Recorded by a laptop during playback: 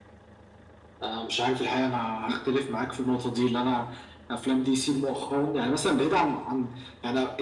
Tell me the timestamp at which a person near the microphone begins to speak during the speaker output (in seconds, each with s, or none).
none